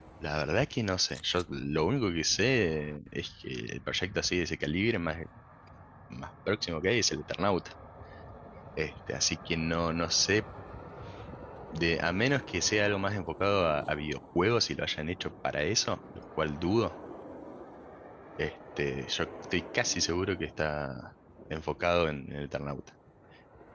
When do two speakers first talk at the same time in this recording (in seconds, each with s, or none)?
none